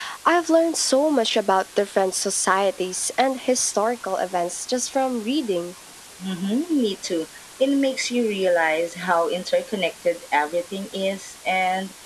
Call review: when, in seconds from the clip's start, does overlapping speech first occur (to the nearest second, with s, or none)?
none